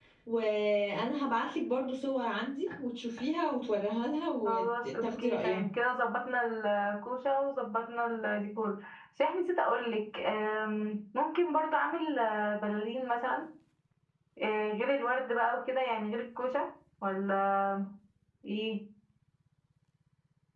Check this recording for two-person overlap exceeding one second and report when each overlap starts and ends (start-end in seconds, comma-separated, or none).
4.4-5.7